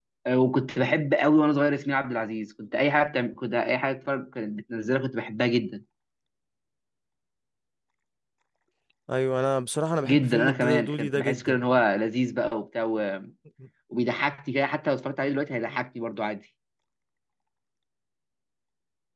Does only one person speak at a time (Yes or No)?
No